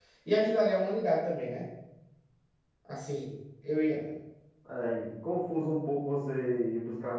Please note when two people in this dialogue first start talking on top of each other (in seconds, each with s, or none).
none